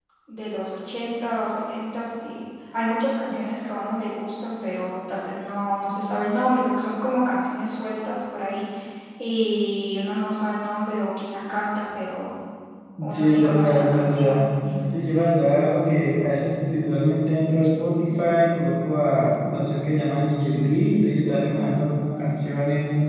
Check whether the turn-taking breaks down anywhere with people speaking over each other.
Yes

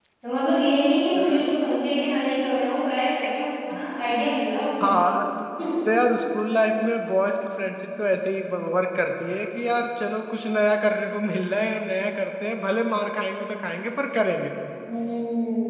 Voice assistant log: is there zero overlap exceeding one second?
Yes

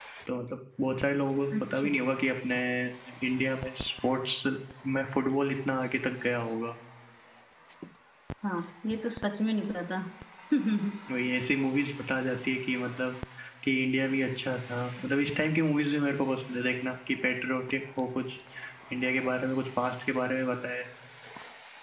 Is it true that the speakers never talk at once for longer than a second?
Yes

